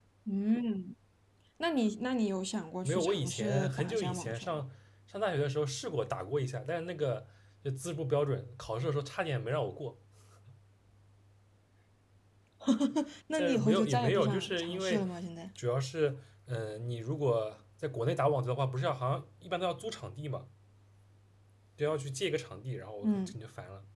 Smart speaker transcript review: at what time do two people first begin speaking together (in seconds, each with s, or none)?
2.8 s